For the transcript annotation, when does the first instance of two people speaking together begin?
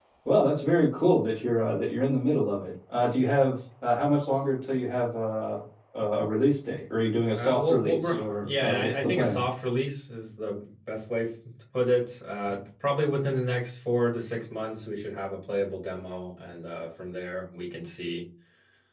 7 s

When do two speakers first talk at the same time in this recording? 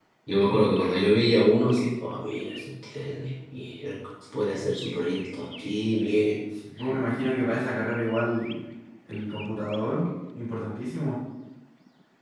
none

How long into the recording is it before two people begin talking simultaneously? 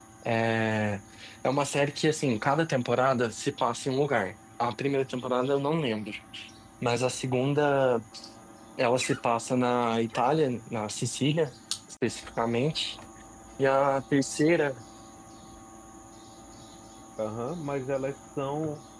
none

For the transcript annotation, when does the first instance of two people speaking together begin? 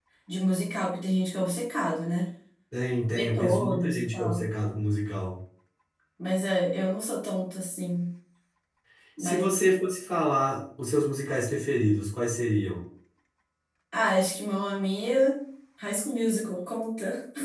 3 s

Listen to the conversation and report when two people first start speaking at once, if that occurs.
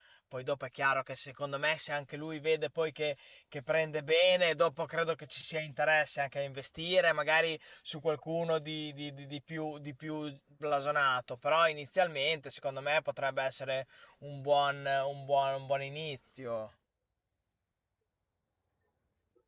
none

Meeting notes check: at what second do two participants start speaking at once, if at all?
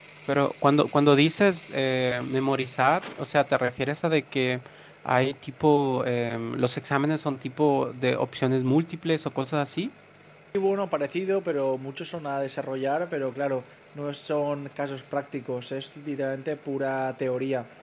none

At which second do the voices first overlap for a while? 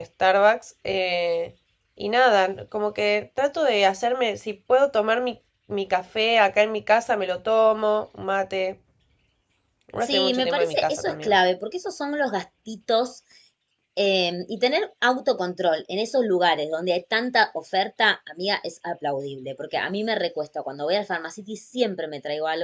10 s

